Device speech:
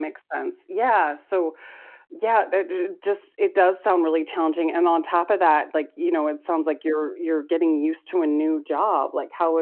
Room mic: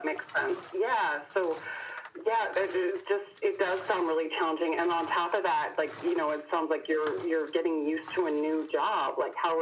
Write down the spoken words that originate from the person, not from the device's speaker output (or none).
none